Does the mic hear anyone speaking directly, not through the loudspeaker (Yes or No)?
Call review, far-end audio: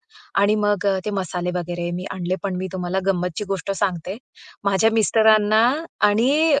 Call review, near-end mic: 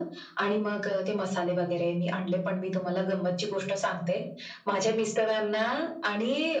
No